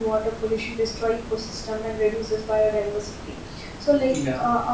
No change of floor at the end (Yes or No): Yes